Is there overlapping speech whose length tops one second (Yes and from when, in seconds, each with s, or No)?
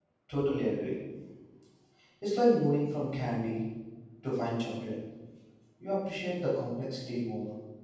No